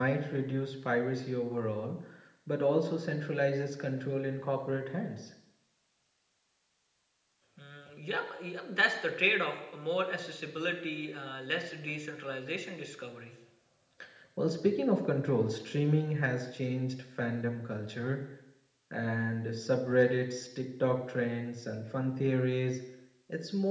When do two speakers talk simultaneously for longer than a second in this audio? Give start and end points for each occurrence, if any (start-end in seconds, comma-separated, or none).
none